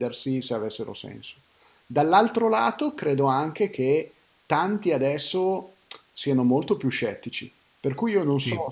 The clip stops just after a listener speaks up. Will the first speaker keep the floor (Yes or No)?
Yes